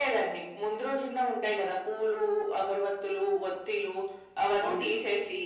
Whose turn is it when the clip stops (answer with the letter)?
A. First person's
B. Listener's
A